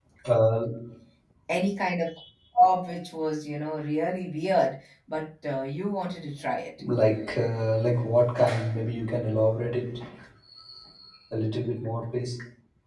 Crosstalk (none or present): none